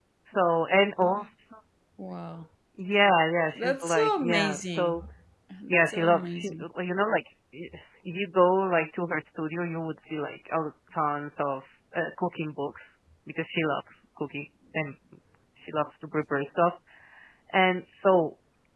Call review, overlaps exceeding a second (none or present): present